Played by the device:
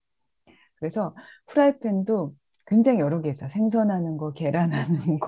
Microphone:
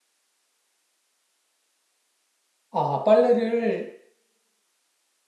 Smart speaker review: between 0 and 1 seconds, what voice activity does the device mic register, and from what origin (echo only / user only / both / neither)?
neither